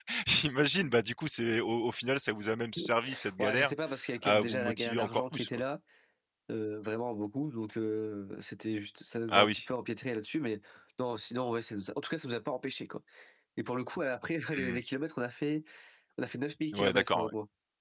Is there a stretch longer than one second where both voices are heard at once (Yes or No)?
Yes